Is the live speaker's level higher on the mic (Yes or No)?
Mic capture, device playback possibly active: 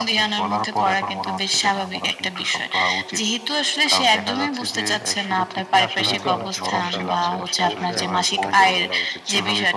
No